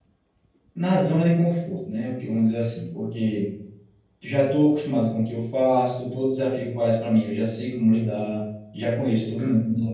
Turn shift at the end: No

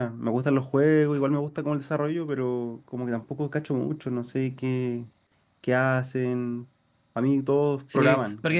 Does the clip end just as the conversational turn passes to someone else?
Yes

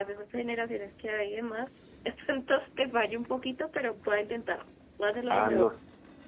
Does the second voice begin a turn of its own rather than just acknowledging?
Yes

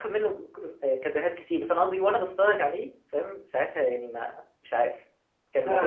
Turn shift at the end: Yes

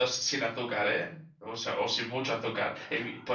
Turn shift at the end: No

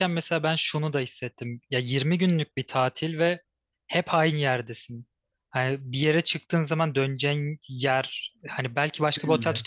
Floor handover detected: No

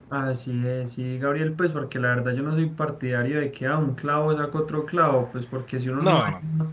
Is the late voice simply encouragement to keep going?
Yes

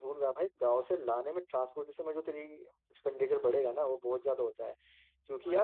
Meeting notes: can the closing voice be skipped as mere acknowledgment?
Yes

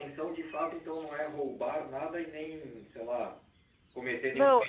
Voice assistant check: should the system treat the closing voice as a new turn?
Yes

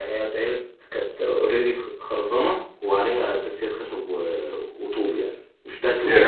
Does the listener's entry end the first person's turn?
Yes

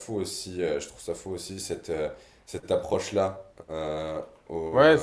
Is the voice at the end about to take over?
Yes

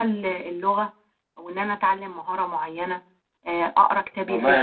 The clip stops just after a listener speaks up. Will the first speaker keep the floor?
No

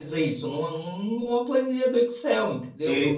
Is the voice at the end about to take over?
Yes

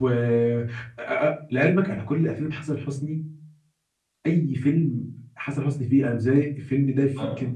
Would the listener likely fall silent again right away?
No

